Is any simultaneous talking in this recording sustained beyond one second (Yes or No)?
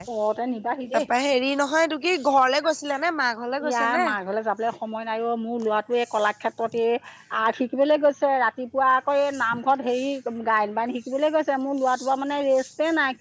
No